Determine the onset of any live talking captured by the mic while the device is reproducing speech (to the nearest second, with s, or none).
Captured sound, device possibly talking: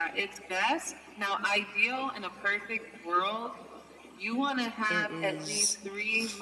5 s